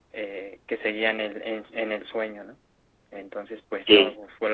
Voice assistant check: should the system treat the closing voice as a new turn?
No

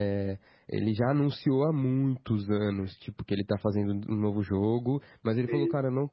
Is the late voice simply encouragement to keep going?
Yes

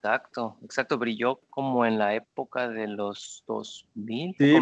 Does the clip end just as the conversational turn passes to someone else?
Yes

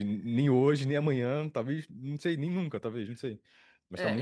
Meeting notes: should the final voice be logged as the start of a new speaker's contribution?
Yes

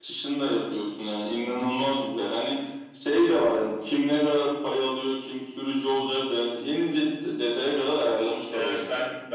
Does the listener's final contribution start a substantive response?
Yes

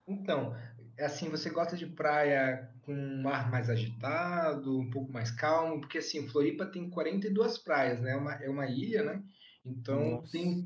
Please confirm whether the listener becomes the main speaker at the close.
No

